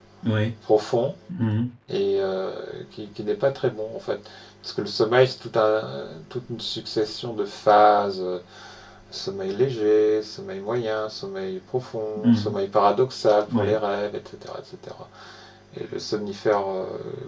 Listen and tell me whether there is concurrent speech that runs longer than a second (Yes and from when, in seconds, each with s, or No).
No